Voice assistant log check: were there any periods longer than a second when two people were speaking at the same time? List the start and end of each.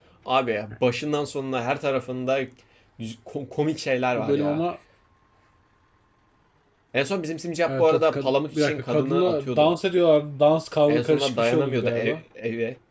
7.7-9.7, 10.9-12.2

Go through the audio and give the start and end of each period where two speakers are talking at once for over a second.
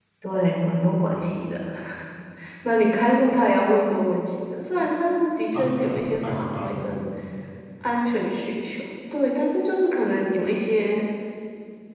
5.5-6.9

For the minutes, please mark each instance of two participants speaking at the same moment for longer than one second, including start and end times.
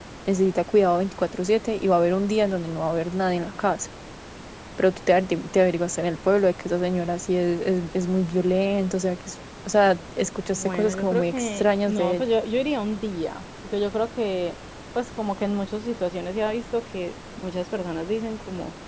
10.5-12.2

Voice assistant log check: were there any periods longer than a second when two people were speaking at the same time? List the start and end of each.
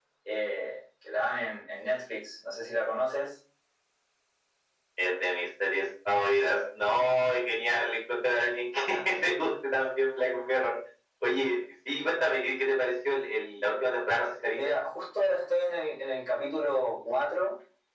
none

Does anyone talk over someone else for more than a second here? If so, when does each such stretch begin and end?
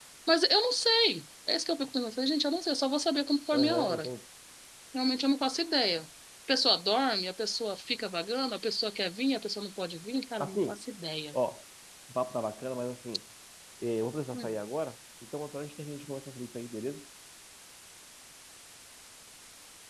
none

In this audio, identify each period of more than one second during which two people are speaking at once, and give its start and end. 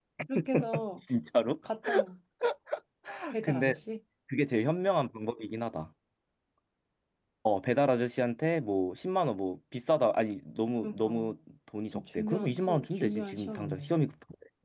11.9-13.9

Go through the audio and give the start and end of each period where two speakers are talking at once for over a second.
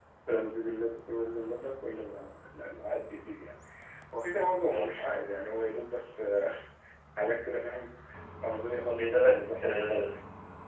8.9-10.1

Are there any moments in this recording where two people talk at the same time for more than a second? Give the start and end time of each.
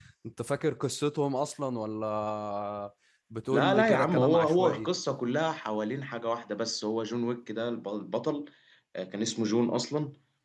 3.5-4.9

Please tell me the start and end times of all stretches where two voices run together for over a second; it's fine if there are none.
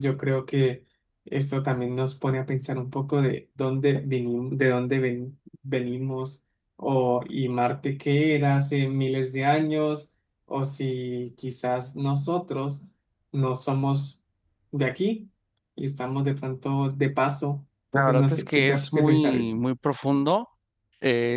17.9-19.6

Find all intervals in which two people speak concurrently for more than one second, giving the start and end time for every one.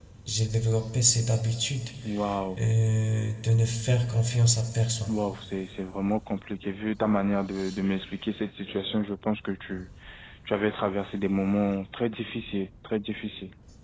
none

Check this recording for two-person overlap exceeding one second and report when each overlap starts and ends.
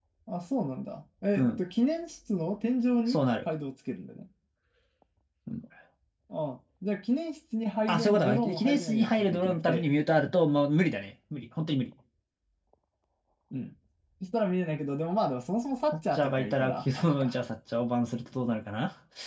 7.9-9.8, 15.9-17.3

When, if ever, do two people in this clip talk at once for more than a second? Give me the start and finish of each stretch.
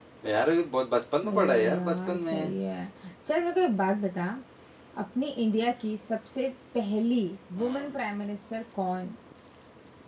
1.2-2.5

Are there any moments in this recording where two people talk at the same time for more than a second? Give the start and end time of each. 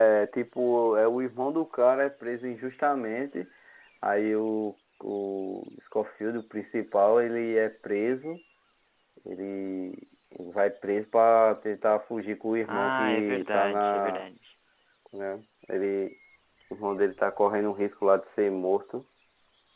12.6-14.2

